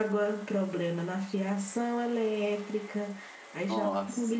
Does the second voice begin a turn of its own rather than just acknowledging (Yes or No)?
No